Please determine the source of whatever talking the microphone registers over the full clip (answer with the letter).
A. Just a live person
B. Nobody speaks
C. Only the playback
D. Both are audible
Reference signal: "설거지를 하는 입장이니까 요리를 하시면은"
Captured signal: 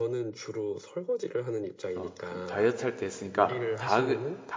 D